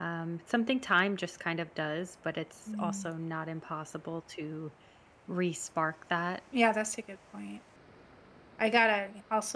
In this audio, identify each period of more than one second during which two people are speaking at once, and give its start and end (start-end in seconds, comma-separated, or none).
none